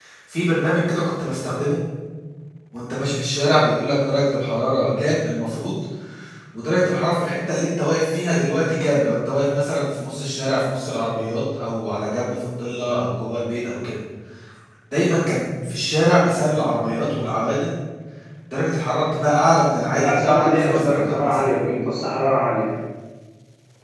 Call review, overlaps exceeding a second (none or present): present